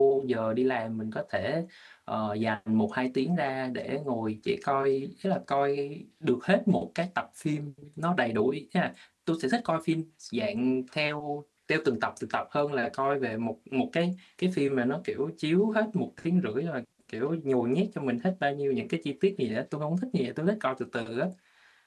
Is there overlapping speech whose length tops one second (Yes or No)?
No